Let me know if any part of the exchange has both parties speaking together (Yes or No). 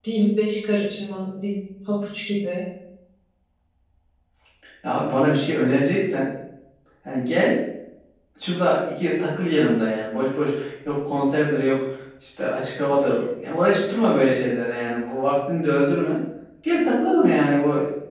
No